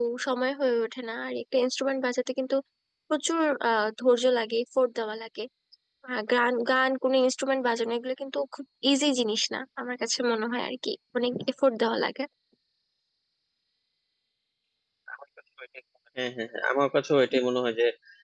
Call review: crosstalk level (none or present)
none